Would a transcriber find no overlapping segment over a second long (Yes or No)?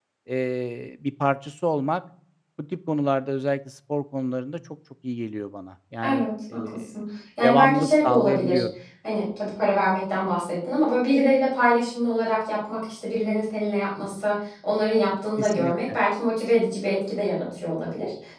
No